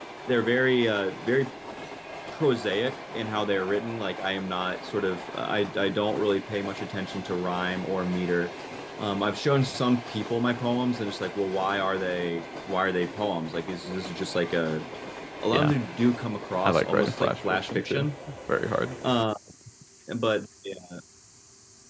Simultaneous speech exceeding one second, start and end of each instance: 16.6-18.1

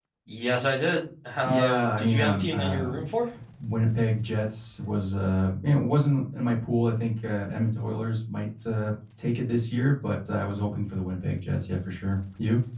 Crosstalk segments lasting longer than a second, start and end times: 1.4-2.9

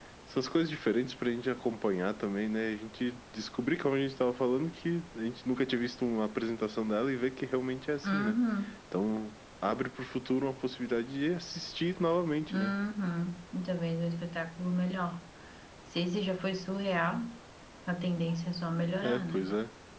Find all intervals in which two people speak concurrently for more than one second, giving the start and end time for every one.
none

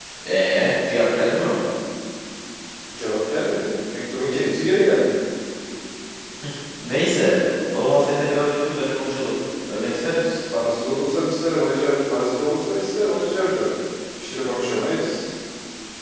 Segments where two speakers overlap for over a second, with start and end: none

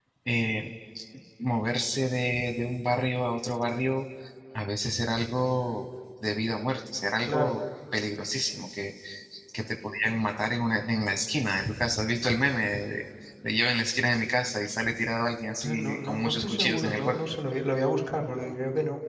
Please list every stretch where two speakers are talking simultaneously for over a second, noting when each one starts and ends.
15.6-17.2

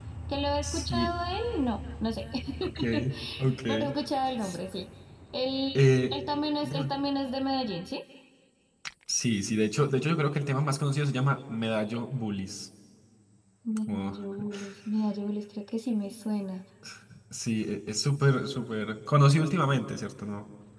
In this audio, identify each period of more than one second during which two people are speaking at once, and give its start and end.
none

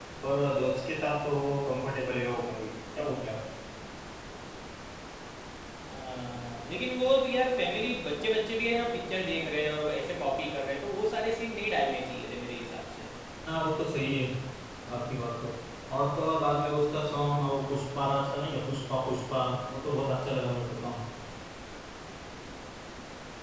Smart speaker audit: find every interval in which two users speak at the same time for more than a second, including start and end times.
none

